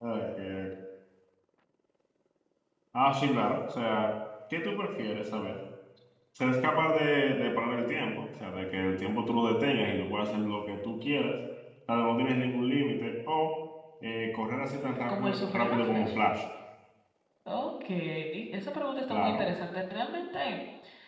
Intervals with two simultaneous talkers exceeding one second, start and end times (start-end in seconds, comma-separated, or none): 14.7-16.1